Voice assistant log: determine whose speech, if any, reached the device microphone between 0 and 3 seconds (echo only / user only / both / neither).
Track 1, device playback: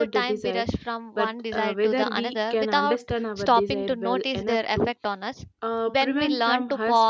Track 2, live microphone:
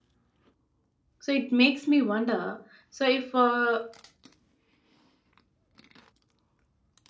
user only